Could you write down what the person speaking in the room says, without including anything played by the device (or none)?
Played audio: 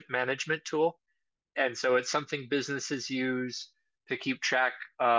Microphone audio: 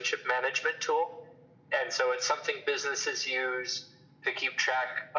none